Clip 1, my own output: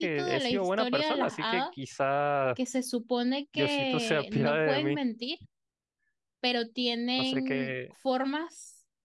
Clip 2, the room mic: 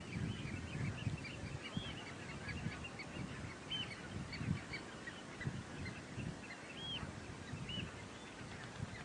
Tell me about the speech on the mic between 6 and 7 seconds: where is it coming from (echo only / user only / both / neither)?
neither